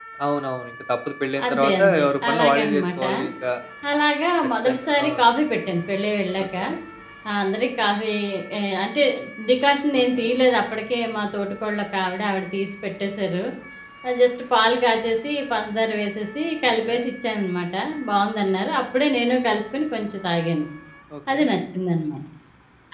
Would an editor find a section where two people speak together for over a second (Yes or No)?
Yes